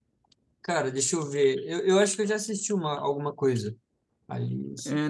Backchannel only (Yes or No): No